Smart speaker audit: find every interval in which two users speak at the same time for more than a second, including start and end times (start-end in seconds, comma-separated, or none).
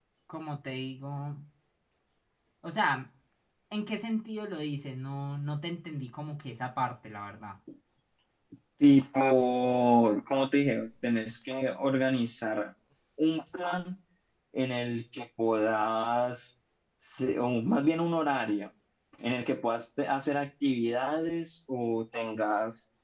none